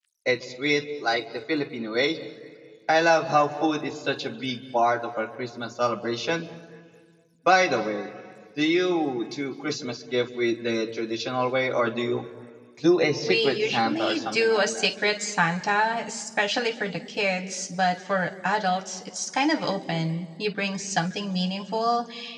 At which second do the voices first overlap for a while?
13.3 s

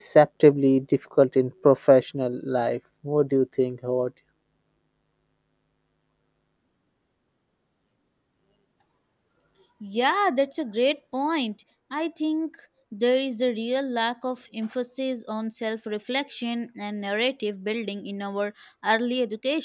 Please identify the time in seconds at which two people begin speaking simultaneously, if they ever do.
none

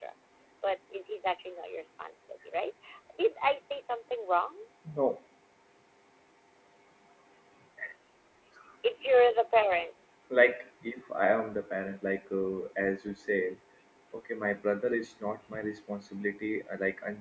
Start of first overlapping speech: none

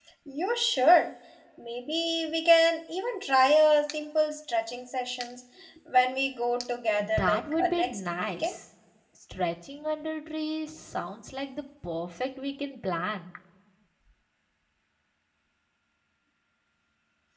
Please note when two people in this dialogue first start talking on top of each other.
7.0 s

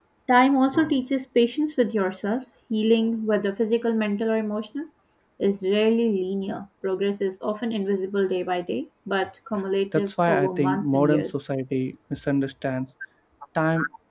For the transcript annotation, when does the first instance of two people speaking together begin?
9.9 s

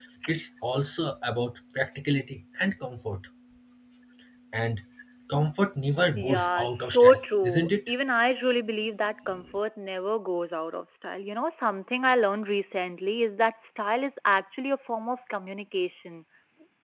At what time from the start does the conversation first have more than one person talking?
6.2 s

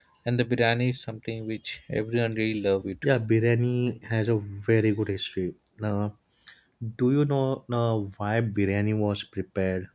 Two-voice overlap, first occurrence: none

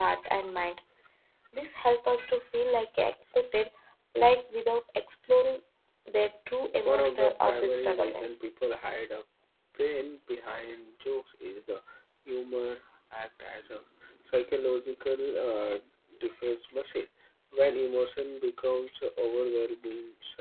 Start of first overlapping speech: 6.8 s

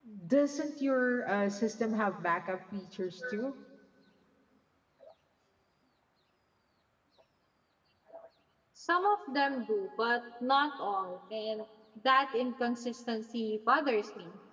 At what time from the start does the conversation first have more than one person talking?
none

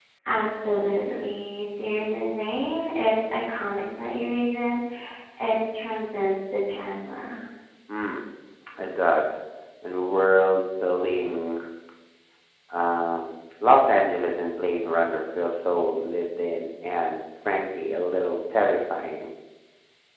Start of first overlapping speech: none

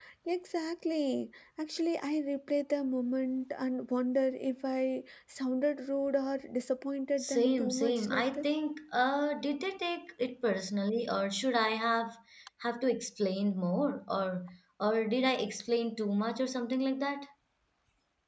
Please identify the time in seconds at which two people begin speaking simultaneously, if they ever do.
7.2 s

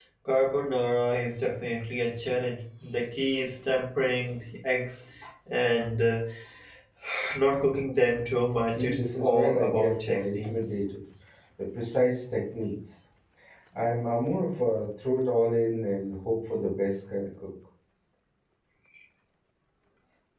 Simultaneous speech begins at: 8.7 s

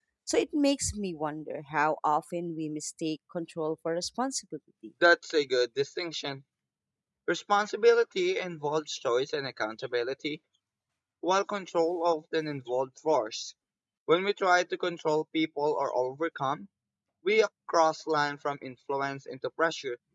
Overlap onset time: none

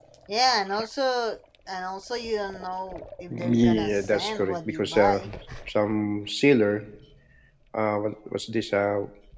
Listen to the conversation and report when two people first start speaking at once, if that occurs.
3.3 s

